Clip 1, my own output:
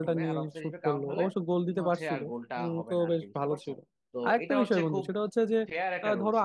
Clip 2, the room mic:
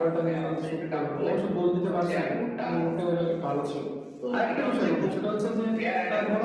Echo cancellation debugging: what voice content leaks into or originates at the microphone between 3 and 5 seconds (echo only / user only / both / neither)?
echo only